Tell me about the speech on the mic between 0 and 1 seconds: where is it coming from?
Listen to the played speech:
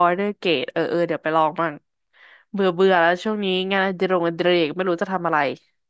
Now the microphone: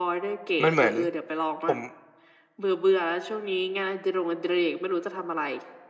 both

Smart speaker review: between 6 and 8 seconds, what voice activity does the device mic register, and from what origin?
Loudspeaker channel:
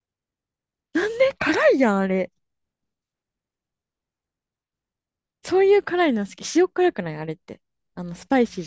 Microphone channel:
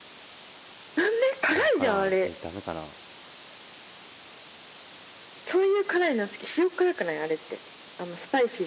echo only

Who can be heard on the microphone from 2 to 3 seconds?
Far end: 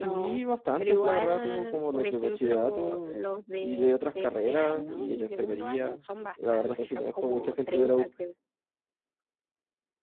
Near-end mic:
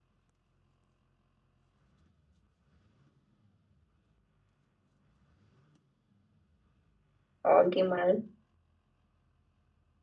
neither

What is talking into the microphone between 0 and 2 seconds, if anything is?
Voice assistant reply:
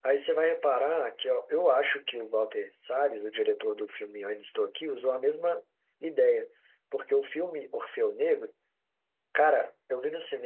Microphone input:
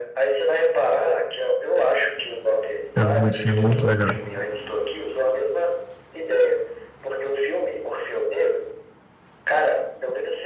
echo only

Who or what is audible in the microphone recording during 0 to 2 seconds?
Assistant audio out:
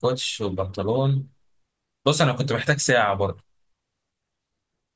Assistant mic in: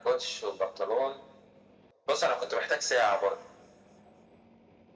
echo only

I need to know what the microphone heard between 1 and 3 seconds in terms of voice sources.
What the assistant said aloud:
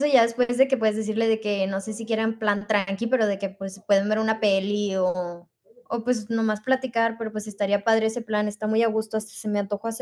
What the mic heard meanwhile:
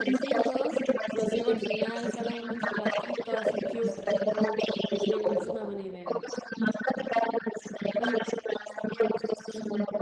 both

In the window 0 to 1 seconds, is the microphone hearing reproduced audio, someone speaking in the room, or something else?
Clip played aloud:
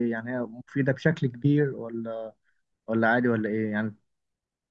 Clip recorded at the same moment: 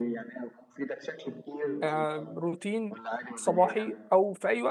echo only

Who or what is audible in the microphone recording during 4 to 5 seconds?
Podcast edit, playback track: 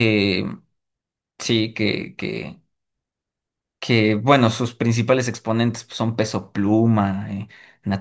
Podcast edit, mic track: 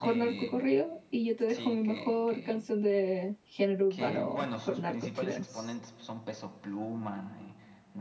both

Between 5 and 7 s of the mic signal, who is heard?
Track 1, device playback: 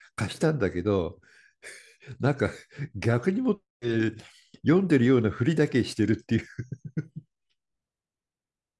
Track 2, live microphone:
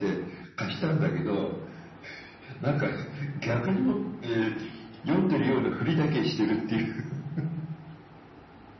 echo only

